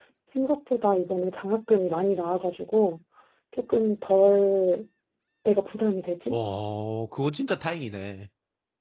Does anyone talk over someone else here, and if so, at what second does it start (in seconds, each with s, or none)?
none